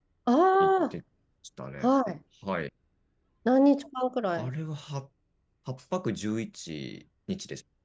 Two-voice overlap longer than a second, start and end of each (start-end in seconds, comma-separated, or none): none